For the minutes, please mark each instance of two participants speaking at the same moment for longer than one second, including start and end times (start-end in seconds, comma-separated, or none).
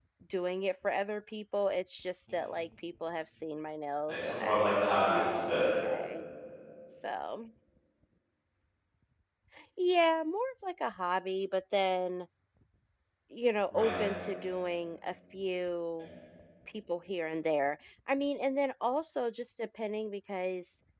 4.1-5.6